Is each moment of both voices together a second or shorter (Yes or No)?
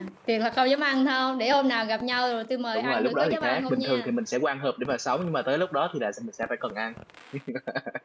No